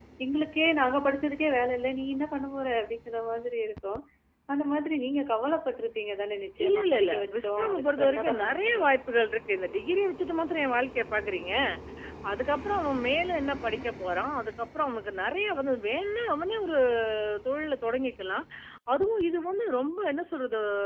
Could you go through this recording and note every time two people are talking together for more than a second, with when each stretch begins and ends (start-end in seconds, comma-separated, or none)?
6.6-9.0